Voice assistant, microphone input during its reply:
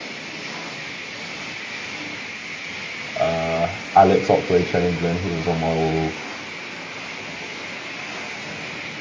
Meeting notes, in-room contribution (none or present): present